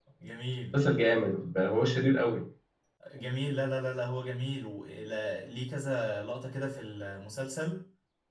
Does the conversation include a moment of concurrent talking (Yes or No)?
No